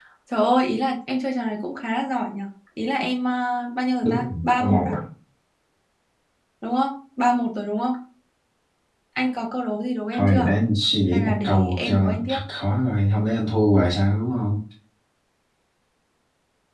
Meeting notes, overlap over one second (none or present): present